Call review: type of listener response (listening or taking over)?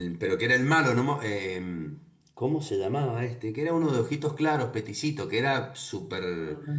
taking over